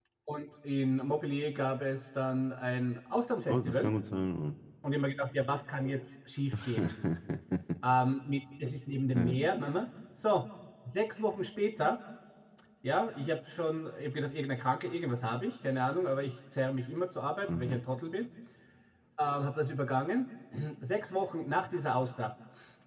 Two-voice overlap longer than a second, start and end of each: none

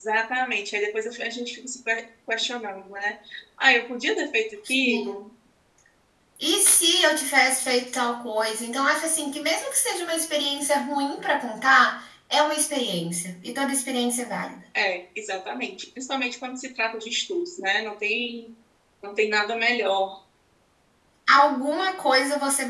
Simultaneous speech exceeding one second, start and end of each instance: none

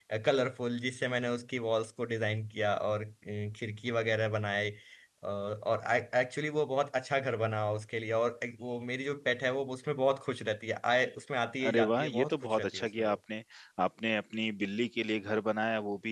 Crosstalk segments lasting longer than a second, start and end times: 11.7-13.2

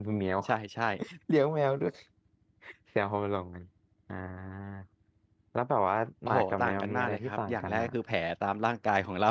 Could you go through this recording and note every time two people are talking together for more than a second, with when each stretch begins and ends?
6.3-7.9

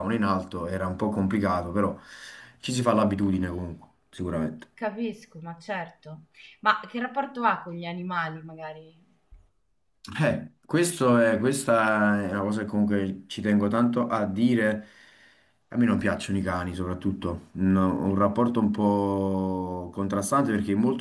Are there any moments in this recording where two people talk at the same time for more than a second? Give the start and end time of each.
none

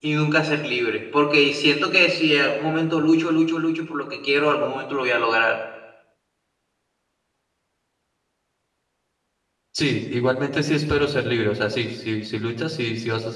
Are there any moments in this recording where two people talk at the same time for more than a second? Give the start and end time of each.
none

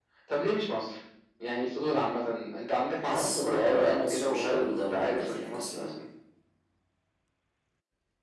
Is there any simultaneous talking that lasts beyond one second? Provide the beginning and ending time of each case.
3.0-5.9

